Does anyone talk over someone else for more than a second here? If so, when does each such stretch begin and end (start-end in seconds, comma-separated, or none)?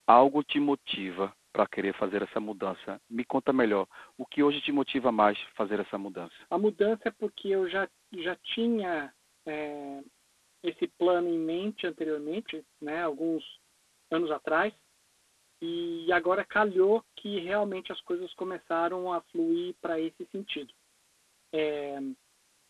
none